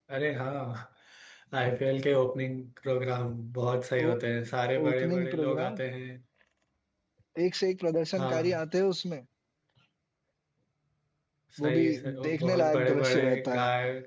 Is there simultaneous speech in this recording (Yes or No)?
Yes